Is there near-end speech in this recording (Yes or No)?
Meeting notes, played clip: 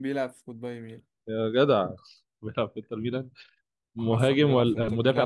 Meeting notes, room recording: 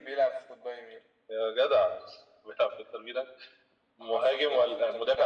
No